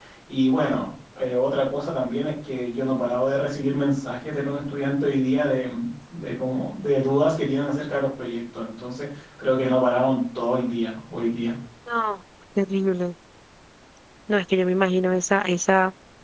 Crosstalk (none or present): none